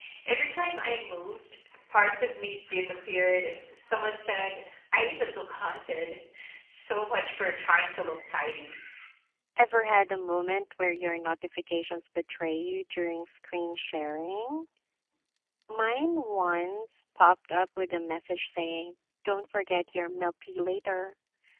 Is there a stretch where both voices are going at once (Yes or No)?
No